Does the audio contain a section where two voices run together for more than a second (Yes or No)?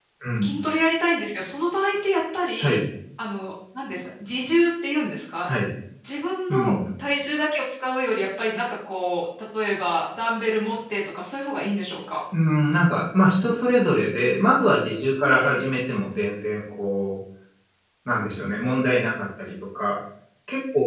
No